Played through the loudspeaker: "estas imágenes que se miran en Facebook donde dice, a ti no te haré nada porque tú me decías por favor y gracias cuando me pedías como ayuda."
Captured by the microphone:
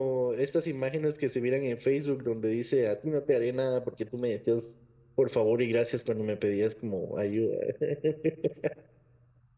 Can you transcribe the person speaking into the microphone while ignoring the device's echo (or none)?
none